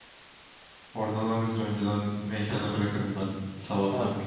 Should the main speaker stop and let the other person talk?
Yes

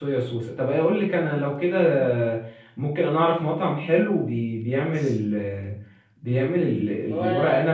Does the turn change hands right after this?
No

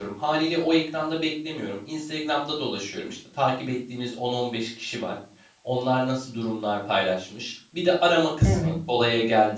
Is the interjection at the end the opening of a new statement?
No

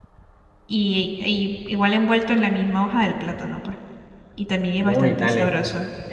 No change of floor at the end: No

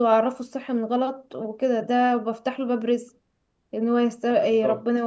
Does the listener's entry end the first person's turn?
No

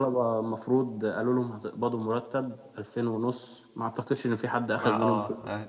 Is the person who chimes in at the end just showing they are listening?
No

